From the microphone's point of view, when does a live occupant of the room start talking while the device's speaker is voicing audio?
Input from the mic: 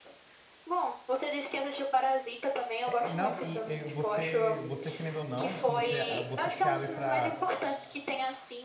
2.8 s

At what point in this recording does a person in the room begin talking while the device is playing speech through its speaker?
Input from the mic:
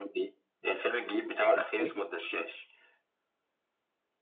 1.5 s

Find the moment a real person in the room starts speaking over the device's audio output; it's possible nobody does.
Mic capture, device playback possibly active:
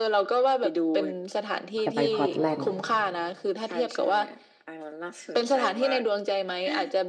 1.8 s

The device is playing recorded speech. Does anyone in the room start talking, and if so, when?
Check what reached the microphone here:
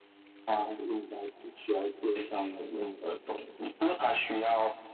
none

